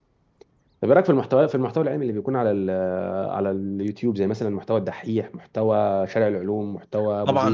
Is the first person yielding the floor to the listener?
Yes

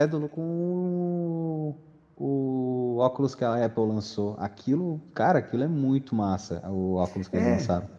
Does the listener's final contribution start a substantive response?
Yes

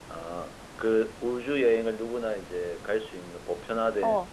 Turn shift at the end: Yes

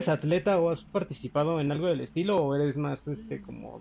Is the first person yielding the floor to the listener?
Yes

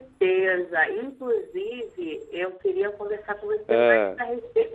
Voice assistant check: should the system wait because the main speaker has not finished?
Yes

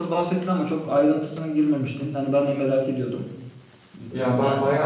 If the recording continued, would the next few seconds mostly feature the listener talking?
Yes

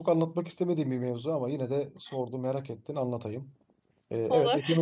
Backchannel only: Yes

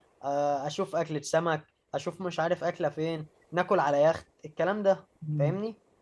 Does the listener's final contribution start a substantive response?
Yes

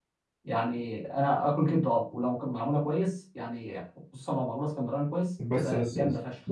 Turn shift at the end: Yes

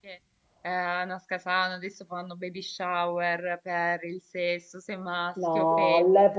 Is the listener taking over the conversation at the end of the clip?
Yes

